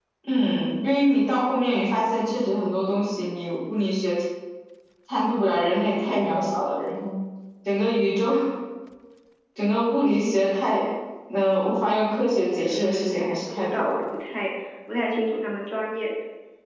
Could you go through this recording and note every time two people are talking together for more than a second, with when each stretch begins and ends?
12.7-14.0

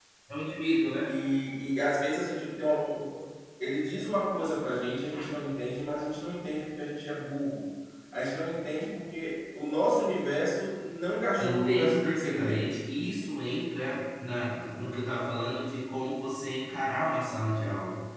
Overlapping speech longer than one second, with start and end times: 11.4-12.7

